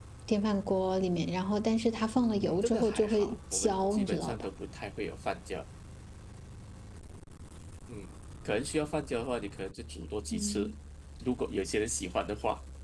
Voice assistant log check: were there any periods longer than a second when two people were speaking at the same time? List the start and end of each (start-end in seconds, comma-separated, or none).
2.2-4.5